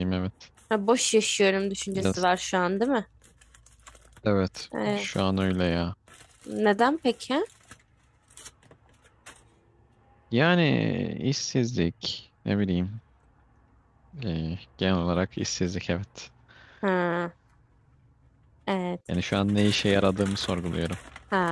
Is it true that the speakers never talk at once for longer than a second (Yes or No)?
Yes